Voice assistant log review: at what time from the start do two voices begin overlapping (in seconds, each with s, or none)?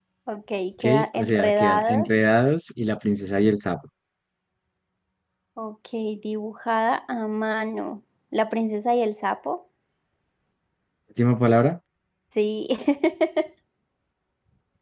0.8 s